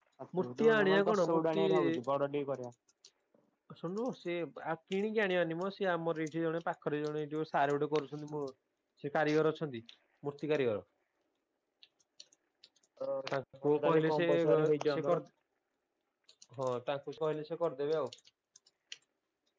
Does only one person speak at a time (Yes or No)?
No